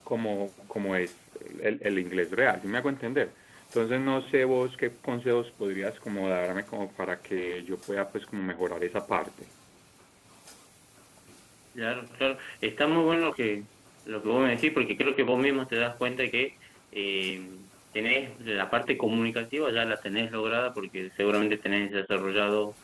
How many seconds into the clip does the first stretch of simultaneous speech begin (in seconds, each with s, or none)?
none